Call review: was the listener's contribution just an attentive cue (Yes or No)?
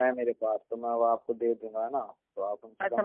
No